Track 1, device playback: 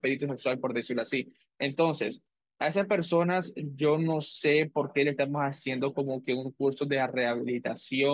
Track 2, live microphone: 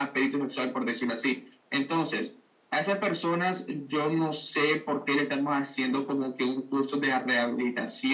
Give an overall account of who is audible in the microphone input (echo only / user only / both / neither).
echo only